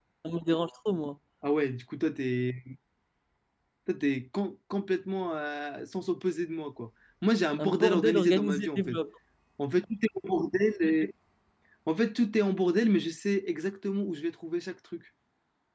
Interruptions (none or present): present